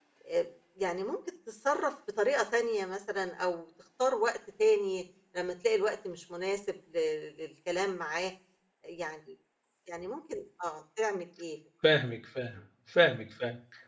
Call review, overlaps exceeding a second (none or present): none